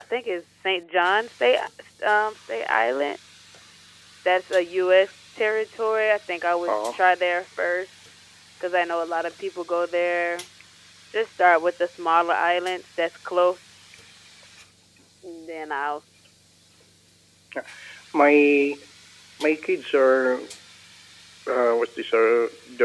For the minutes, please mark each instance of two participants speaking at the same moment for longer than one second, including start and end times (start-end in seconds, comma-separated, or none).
none